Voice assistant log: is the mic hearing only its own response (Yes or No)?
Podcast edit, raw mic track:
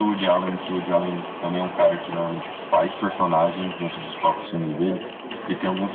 No